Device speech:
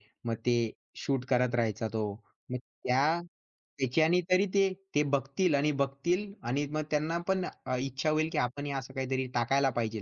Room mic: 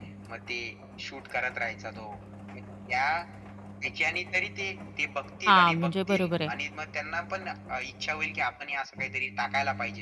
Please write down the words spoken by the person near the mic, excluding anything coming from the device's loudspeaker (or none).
हां, म्हणजे बरोबर आहे